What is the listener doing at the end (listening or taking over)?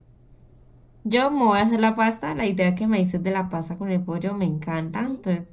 listening